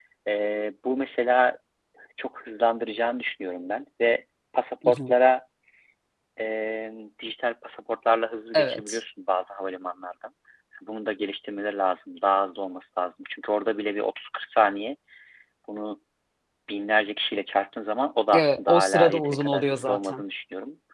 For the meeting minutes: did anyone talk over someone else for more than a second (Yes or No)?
Yes